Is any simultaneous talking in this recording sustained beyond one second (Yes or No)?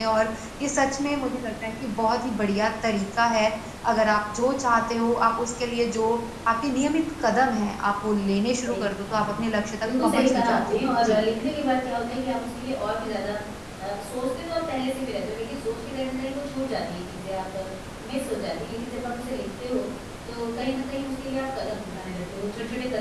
Yes